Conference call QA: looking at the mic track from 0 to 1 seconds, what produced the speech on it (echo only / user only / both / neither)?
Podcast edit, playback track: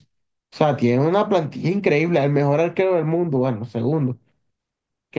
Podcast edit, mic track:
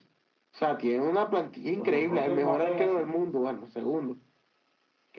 echo only